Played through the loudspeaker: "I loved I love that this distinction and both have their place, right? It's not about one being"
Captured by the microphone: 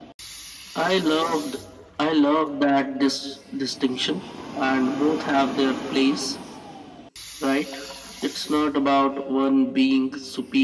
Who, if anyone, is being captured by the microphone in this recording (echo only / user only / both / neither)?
echo only